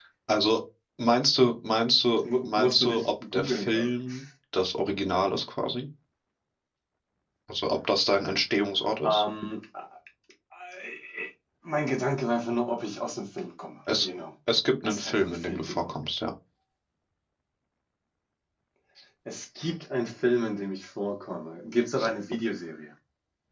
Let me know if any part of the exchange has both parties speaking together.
Yes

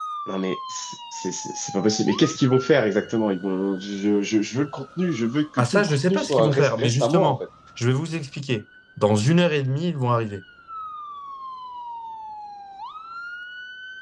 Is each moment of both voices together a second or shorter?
No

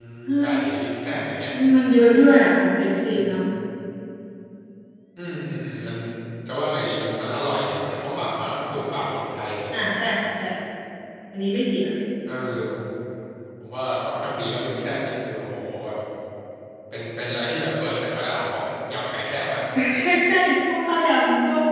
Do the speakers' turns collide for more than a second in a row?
No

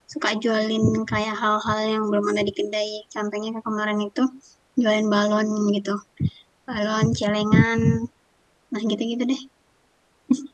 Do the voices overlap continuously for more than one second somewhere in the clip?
No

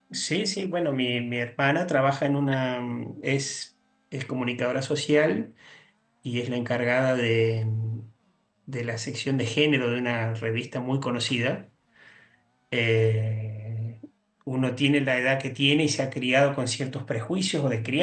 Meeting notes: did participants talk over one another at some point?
No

